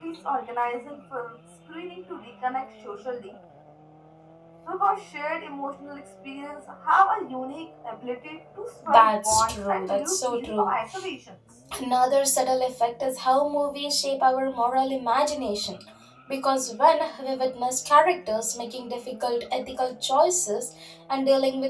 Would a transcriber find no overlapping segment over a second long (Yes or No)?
No